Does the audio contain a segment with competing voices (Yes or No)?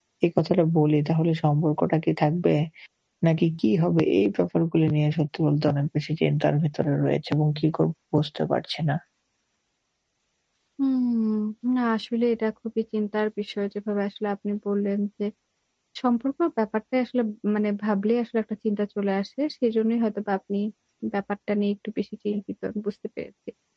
No